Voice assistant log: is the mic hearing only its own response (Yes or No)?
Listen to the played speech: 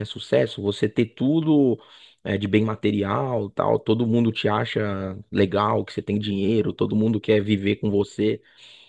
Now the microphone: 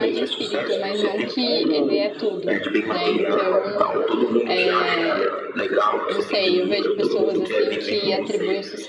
No